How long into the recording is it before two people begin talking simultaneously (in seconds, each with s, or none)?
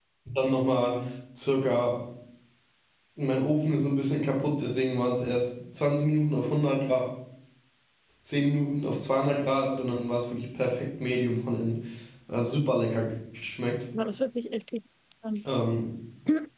none